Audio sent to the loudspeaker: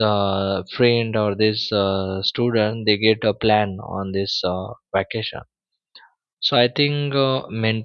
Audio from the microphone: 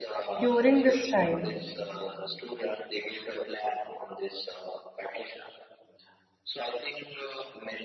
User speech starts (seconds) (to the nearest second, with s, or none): 0 s